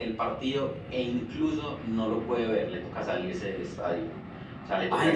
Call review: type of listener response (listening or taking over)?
taking over